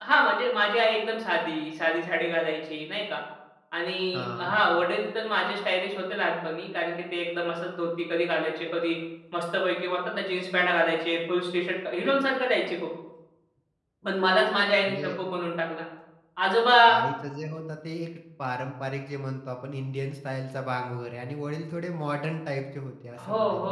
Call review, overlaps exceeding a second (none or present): none